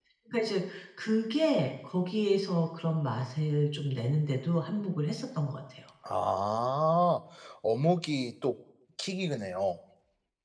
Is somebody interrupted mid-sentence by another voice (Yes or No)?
No